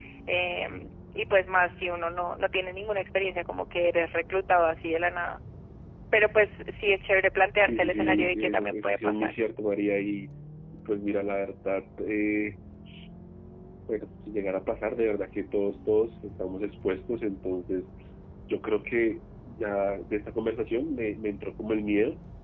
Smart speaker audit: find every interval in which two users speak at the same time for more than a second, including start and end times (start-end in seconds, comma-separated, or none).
7.6-9.3